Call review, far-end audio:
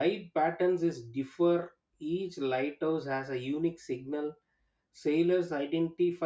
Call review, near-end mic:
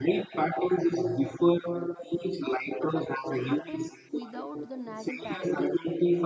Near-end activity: present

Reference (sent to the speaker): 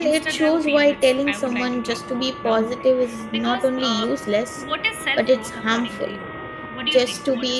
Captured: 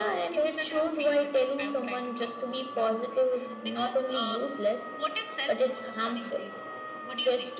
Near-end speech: none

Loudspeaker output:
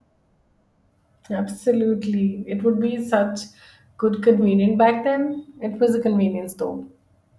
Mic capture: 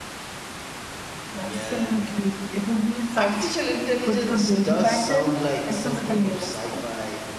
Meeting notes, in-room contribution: present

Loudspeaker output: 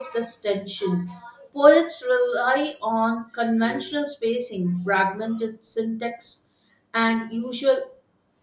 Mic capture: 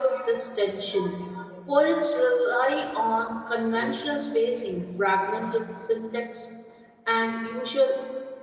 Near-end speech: none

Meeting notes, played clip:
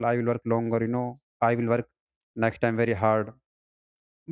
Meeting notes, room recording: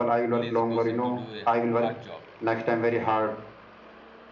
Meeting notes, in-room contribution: present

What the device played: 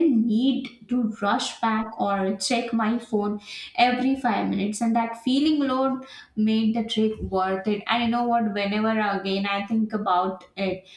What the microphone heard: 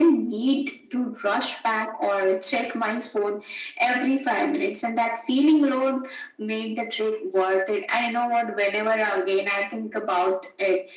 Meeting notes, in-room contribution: none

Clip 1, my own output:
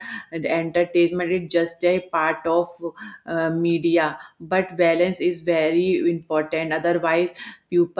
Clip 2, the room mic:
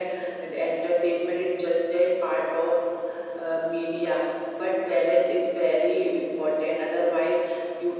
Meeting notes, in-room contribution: none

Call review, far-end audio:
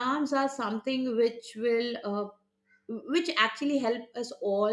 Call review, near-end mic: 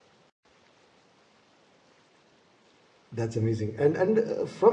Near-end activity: present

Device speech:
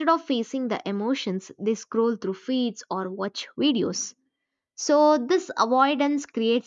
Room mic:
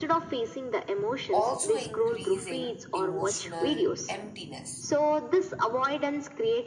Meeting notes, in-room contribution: present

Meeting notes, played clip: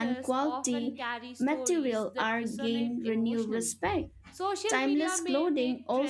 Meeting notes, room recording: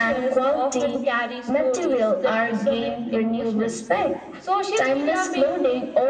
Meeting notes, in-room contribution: none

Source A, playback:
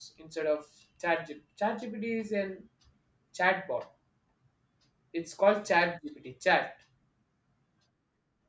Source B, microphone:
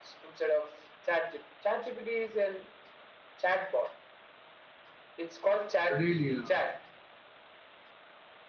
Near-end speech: present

